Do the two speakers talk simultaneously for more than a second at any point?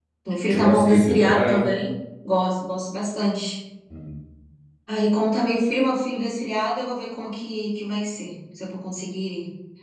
Yes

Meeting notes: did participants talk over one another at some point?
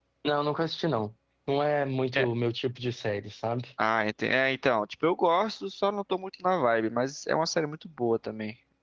No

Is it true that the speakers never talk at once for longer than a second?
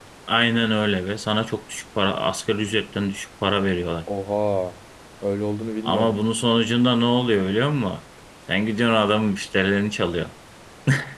Yes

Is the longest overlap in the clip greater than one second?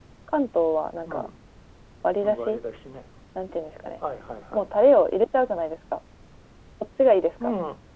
No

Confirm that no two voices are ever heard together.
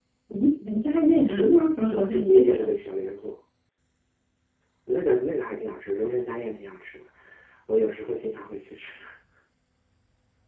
No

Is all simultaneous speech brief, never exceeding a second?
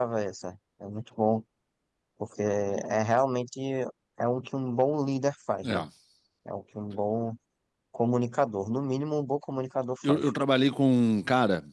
Yes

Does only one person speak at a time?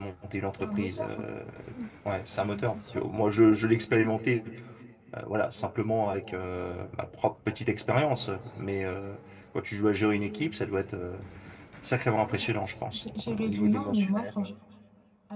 No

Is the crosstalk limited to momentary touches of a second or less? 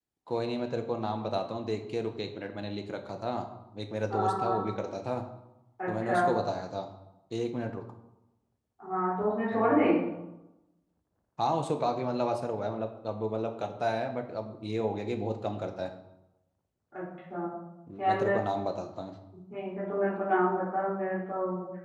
Yes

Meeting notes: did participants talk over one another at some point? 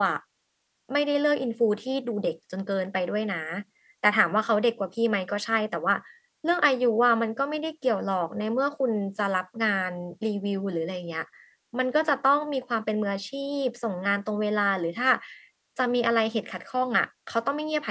No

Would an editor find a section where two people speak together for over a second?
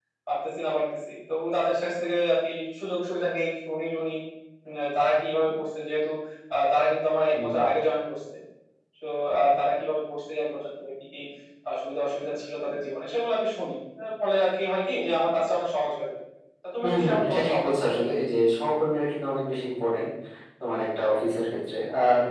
Yes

